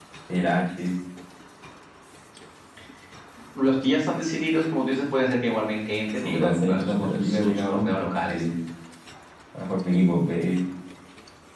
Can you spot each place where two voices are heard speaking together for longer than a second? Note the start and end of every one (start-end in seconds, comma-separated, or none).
6.2-8.6